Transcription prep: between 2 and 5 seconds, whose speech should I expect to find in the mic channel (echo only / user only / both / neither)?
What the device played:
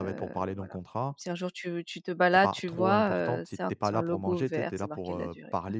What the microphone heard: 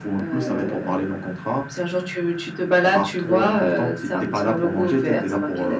echo only